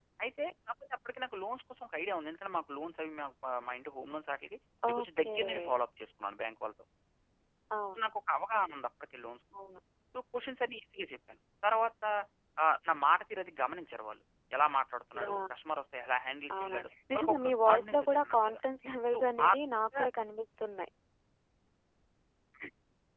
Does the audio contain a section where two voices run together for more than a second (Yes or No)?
Yes